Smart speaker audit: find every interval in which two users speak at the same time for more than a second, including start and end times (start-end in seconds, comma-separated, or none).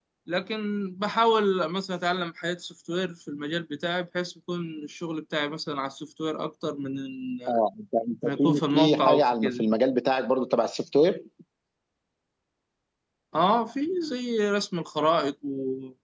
8.4-9.6